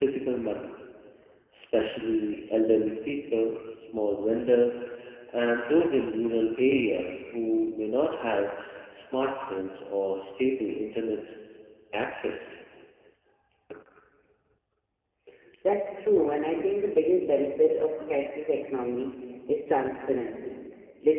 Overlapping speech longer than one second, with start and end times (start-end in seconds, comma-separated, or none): none